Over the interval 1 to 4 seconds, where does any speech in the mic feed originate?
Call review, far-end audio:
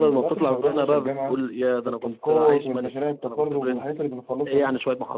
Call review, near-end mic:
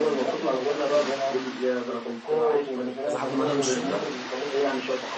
both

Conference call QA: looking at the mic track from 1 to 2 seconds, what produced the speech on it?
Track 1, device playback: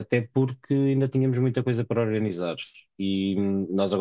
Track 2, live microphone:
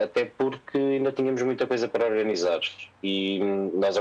echo only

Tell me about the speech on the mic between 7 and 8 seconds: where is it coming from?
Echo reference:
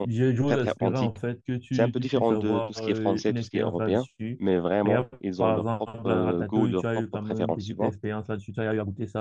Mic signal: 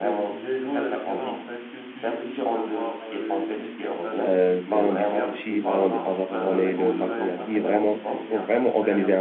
both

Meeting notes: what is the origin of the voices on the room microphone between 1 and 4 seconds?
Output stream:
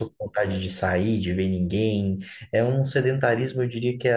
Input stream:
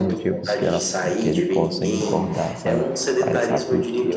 both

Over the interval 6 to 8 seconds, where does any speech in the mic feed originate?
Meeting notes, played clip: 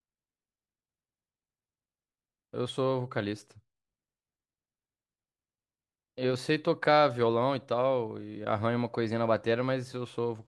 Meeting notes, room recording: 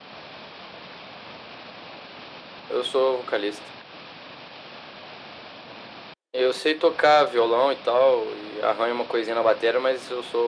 echo only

